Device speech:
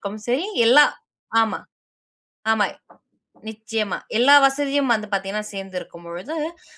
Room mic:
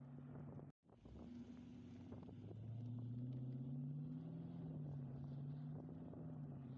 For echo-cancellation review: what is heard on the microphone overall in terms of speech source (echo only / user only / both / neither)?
neither